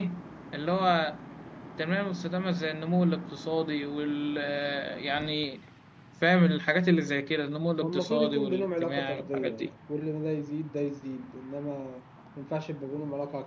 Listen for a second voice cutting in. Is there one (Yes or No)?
Yes